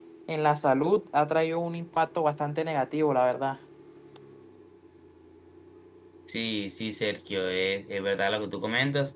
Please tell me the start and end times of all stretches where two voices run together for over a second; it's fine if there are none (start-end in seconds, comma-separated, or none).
none